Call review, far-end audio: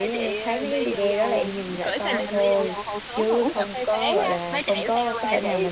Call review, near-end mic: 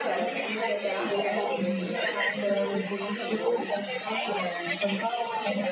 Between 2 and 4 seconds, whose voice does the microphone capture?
both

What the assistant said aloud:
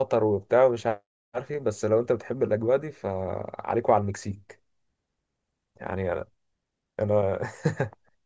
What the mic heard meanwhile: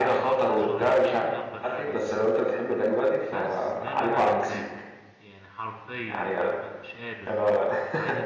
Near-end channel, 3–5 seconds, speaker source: both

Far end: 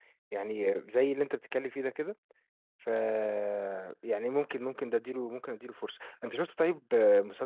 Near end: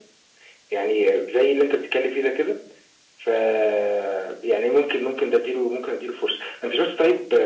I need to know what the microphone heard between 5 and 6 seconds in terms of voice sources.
echo only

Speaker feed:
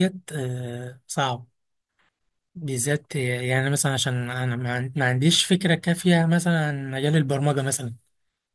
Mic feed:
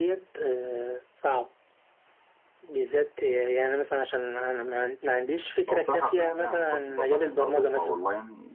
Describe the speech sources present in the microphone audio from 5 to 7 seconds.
both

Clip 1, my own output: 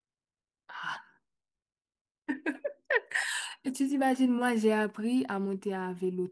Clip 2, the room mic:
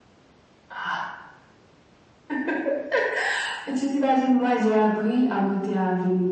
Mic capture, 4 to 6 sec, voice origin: echo only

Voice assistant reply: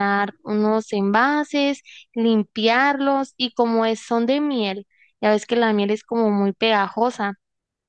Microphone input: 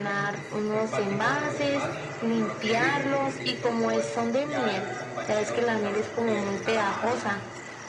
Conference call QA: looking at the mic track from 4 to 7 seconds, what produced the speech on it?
both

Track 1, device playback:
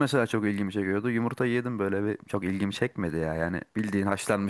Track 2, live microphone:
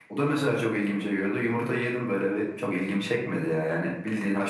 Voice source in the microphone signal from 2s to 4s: echo only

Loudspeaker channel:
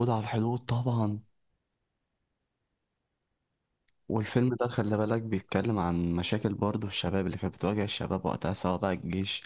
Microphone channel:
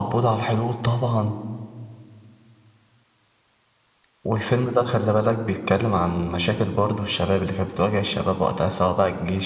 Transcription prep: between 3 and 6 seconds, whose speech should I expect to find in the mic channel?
echo only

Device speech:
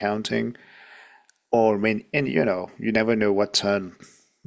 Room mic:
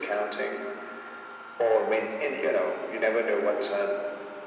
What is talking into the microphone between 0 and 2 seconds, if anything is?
echo only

